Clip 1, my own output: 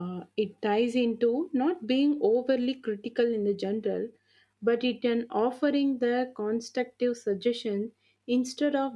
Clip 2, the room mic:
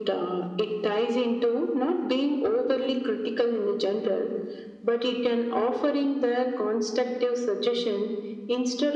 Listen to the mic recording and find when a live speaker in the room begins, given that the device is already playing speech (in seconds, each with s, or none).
none